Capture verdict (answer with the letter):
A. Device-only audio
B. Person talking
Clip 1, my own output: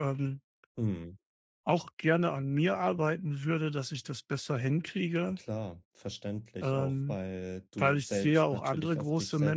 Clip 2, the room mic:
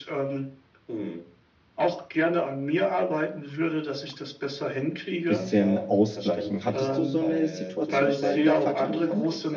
B